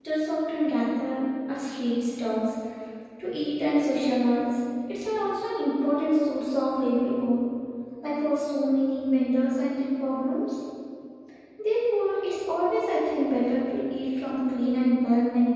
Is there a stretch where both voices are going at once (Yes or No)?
No